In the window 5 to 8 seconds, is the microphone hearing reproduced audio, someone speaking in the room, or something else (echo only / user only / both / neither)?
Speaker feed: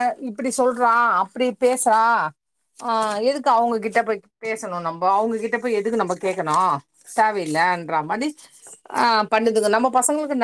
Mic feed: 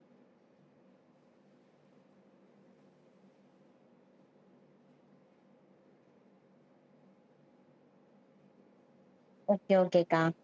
neither